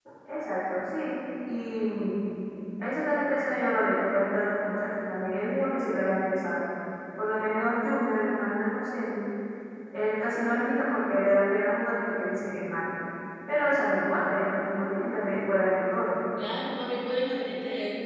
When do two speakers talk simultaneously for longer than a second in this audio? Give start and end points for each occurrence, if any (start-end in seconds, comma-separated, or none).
none